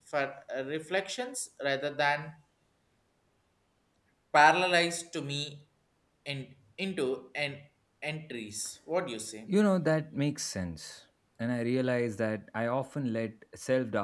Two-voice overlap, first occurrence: none

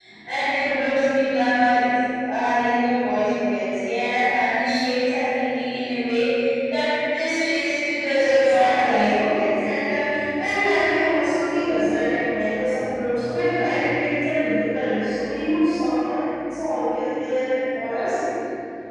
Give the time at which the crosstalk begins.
8 s

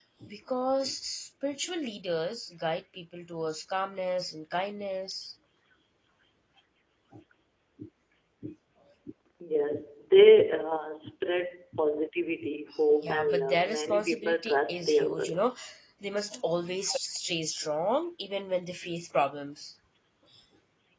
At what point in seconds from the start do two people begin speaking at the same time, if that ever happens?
13 s

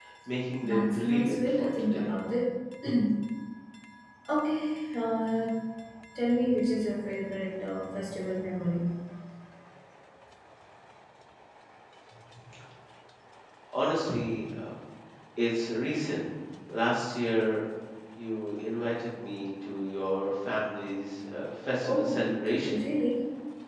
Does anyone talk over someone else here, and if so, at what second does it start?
1 s

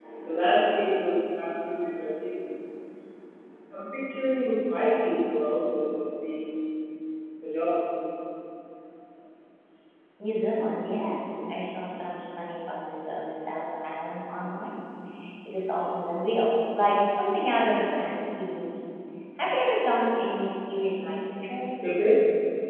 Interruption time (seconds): none

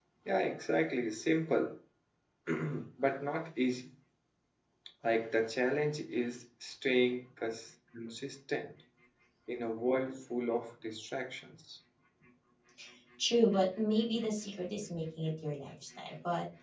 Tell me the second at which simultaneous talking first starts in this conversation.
none

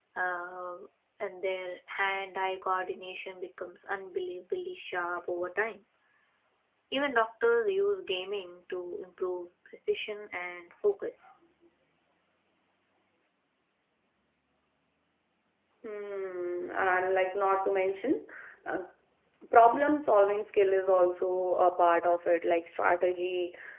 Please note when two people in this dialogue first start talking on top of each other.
none

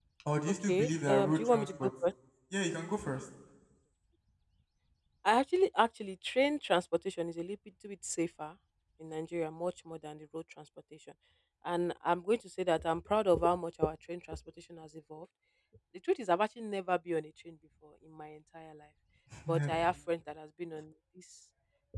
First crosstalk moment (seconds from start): 1 s

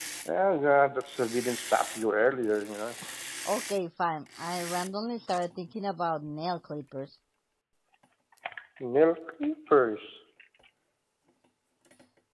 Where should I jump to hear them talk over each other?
none

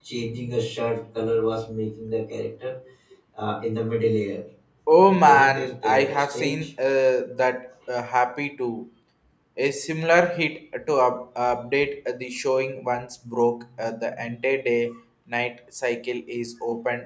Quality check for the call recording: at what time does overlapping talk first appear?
5 s

